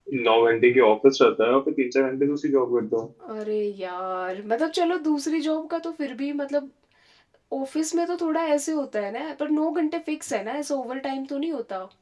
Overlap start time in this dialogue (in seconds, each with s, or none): none